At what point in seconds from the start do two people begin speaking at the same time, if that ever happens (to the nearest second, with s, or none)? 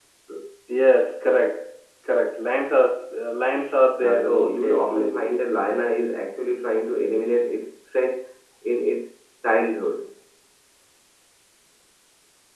4 s